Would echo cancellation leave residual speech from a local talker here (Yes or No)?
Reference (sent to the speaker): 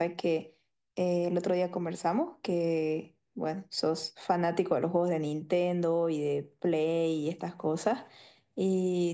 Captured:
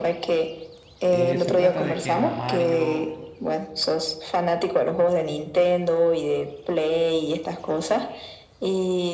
Yes